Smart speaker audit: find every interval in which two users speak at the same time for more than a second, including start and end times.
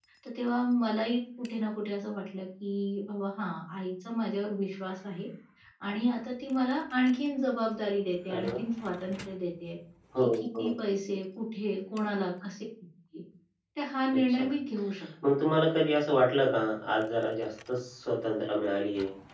none

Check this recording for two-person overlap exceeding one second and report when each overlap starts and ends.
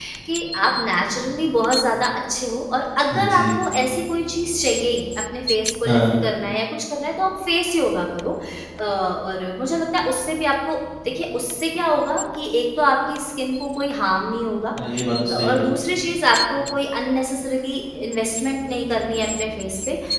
none

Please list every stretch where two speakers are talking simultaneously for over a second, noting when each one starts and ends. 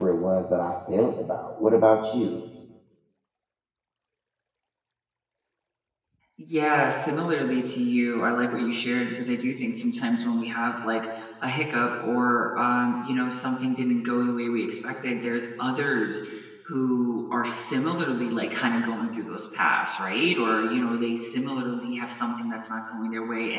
none

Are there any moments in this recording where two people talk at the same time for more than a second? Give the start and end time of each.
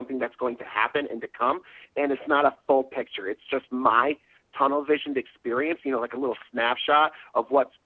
none

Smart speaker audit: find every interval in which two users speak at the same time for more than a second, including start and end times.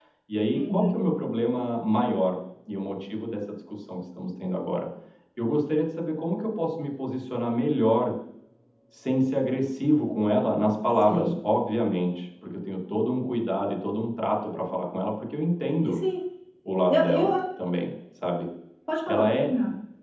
none

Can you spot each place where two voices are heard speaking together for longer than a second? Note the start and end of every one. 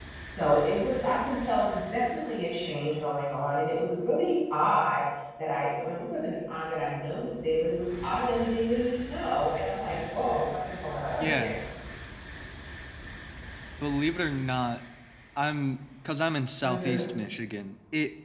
none

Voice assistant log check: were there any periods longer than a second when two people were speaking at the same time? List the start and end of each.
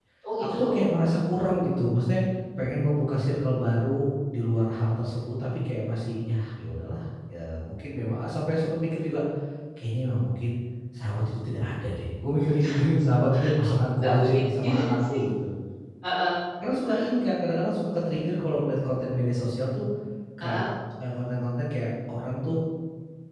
14.0-15.2

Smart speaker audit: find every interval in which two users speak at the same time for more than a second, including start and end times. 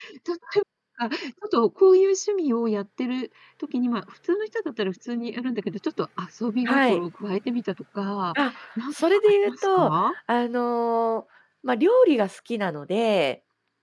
8.9-10.1

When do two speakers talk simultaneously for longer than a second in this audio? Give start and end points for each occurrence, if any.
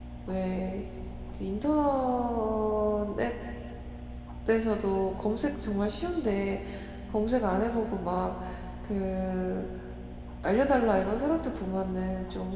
none

